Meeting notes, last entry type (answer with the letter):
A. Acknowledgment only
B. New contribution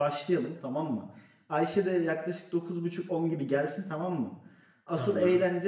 A